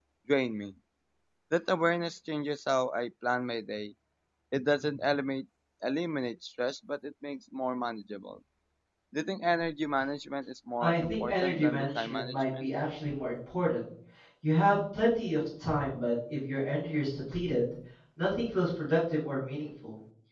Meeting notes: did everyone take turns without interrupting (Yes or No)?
No